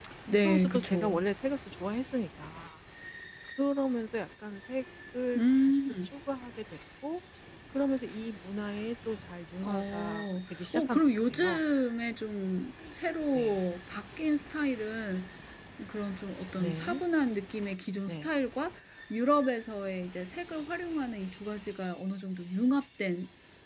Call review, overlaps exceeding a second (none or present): present